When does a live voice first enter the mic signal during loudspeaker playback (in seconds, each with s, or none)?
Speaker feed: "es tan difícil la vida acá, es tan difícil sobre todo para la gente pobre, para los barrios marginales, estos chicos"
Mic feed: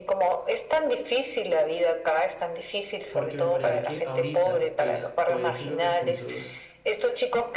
3.1 s